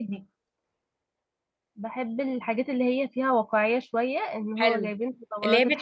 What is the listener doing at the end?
taking over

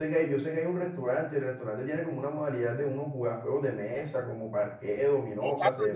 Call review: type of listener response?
taking over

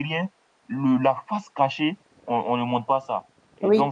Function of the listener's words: listening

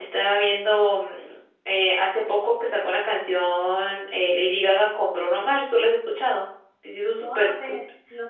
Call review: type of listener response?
taking over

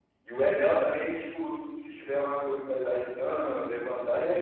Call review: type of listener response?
taking over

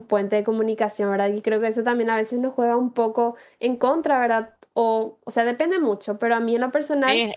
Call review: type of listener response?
taking over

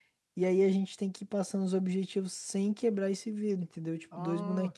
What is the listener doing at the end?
taking over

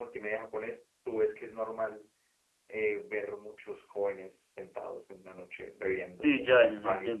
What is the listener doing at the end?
taking over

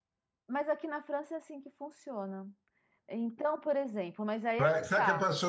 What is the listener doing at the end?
taking over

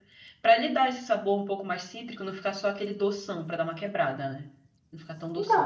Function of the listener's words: taking over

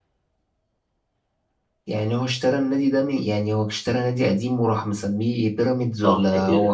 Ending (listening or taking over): taking over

